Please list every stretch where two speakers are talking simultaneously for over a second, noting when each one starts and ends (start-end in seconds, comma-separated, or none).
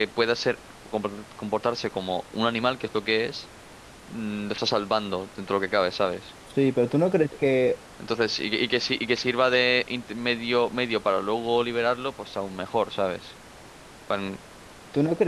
none